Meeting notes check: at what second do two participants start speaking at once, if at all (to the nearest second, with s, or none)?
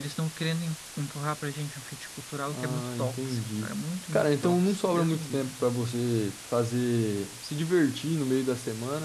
2 s